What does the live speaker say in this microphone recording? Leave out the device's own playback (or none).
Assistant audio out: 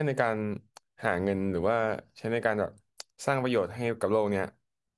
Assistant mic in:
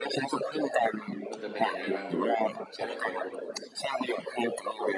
คุณจะเป็นยังไงบ้างแบบเกี่ยวกับตัวคุณ